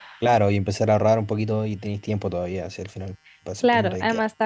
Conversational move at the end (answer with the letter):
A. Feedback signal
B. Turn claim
B